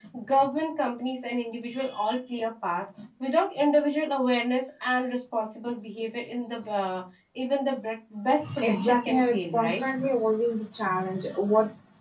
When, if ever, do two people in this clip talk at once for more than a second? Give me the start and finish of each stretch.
8.6-9.8

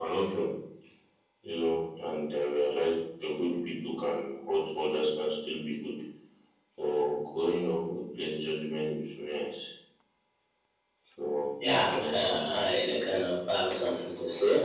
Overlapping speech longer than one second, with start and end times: 11.6-13.4

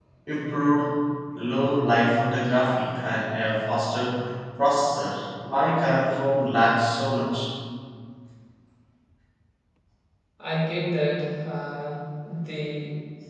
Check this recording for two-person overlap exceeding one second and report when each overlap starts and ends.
none

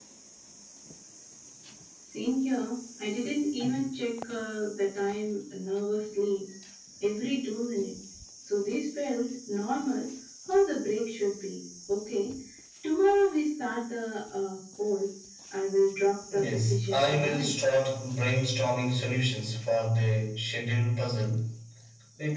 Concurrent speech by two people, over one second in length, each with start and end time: 16.3-17.5

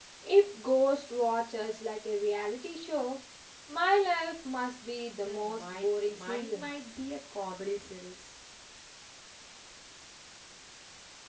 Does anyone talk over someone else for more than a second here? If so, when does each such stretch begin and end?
5.2-6.6

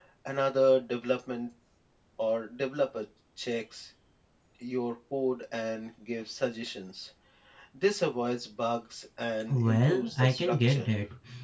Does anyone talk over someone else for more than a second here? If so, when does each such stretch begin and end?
9.5-10.9

